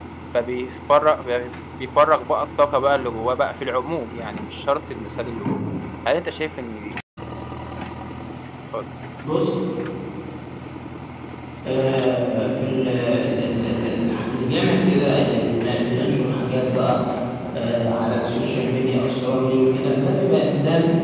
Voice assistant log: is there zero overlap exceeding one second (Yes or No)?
Yes